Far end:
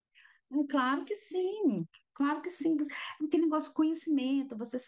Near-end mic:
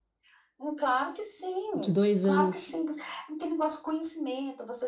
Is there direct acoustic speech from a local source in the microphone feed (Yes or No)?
Yes